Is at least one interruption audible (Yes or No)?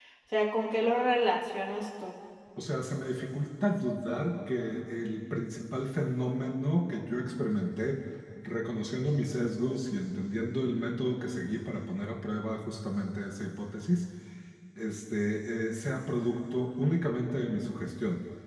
No